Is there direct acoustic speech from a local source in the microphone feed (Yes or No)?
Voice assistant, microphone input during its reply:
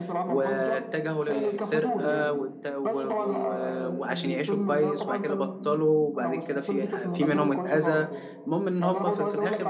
Yes